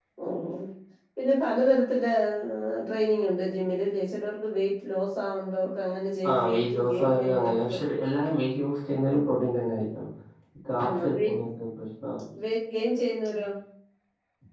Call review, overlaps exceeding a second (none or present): present